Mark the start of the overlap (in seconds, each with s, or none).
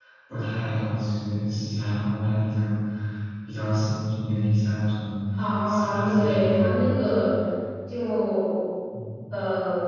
5.7 s